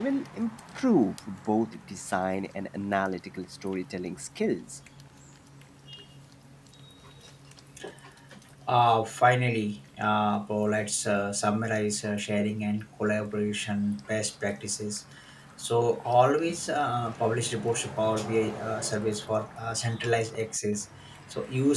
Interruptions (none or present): none